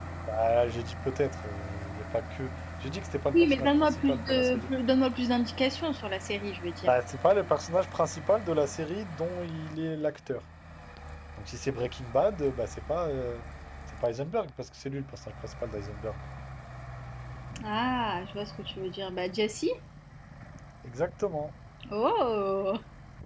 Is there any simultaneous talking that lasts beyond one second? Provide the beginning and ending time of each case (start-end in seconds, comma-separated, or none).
3.4-4.7